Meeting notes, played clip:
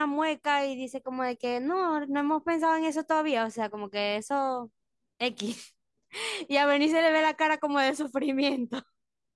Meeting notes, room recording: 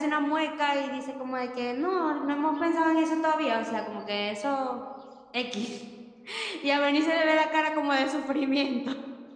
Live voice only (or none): none